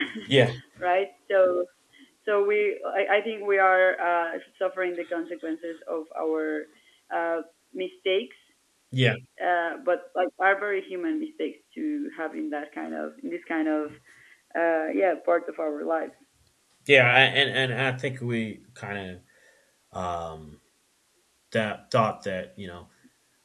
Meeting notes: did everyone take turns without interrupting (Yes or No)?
Yes